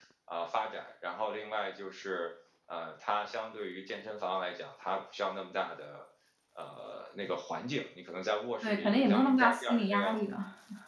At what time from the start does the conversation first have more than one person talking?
8.6 s

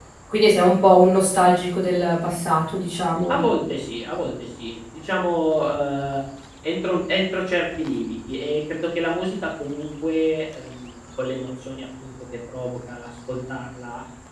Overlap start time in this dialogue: none

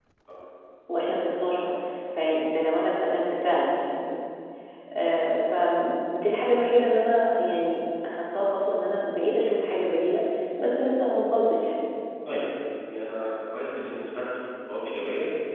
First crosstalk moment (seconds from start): none

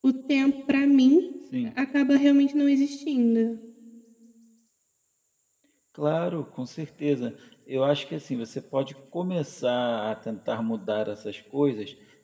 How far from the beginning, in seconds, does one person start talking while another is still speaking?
none

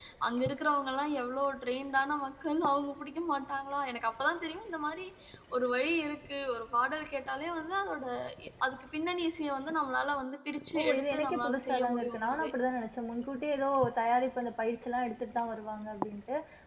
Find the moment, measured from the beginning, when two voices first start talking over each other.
10.8 s

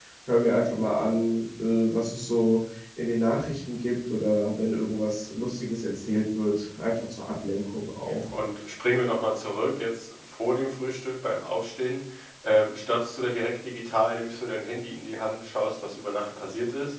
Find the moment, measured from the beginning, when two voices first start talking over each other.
none

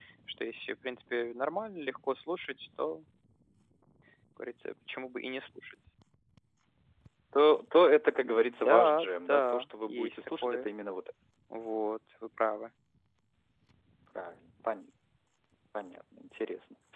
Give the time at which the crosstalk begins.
8.2 s

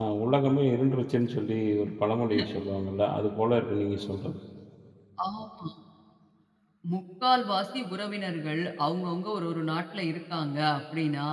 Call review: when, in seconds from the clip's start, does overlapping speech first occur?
none

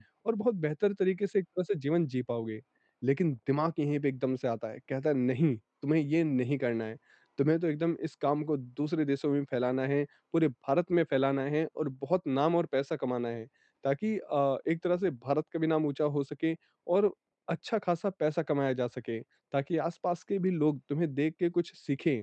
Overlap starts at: none

